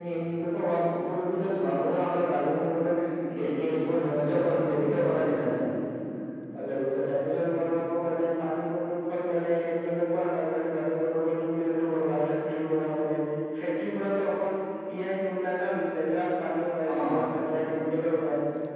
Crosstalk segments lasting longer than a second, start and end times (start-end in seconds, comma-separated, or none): 4.0-5.5